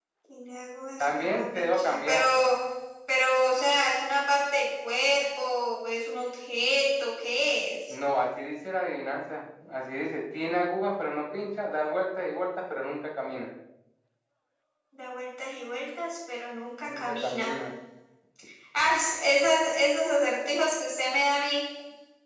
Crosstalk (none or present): present